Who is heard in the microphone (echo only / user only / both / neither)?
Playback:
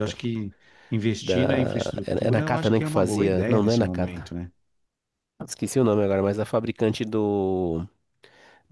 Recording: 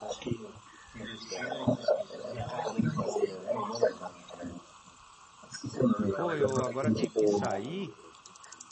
both